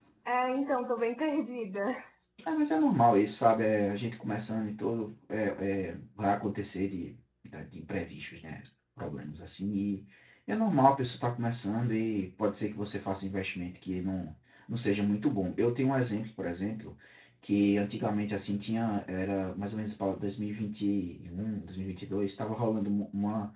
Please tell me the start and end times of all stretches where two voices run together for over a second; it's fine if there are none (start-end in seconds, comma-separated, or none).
none